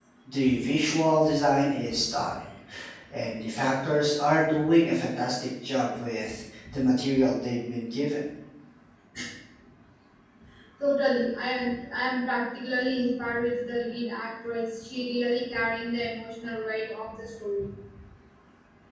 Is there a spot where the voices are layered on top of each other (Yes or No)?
No